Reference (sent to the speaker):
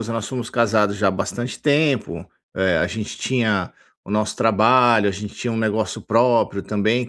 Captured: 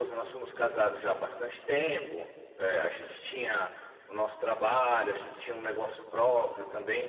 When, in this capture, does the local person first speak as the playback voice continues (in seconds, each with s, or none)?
none